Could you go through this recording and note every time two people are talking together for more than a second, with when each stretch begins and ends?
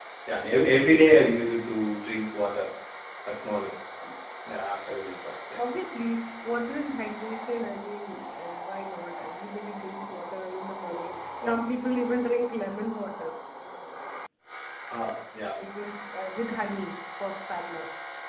none

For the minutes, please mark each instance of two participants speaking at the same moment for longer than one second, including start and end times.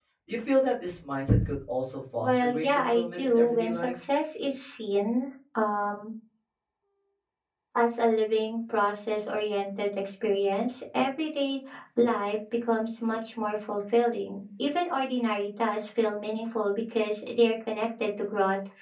2.2-3.9

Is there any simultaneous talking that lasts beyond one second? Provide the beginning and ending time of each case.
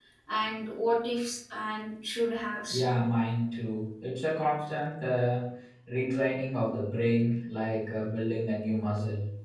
none

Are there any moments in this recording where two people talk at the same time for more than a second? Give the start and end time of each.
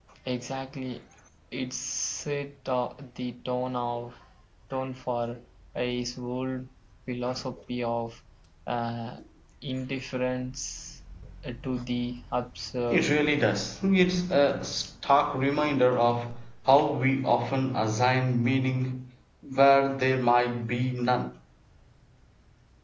none

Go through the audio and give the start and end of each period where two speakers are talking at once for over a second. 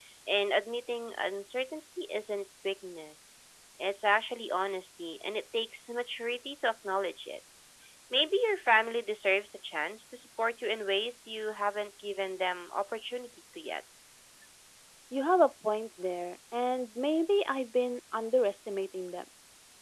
none

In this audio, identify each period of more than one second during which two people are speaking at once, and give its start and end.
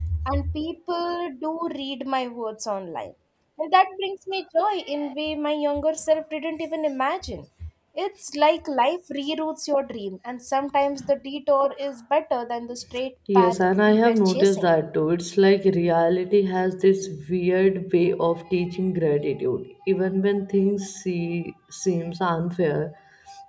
13.4-14.7

